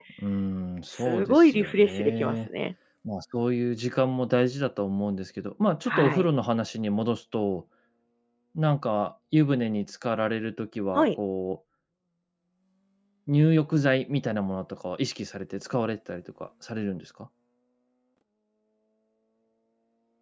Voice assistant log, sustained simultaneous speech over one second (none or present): present